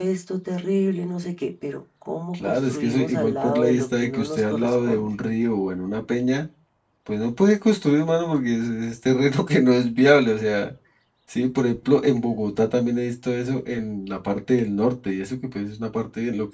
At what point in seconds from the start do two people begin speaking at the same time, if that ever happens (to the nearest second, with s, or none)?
2 s